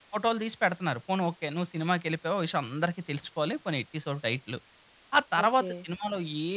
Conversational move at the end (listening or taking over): listening